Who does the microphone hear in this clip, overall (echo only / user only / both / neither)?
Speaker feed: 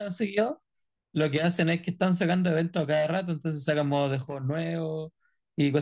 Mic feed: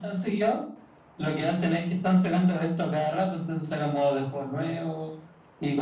echo only